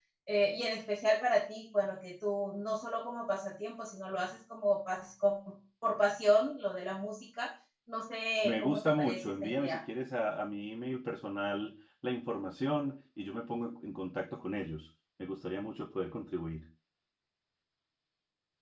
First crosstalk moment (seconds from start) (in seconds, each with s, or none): 8.4 s